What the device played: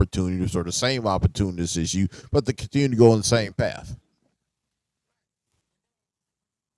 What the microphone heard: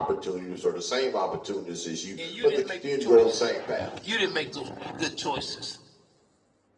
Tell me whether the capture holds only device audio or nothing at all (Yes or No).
No